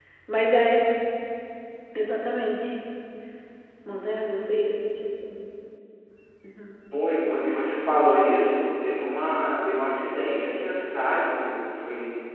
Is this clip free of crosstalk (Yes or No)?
Yes